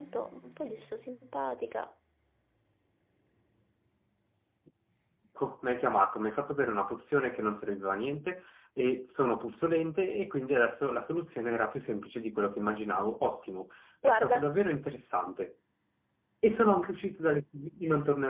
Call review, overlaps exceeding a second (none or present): none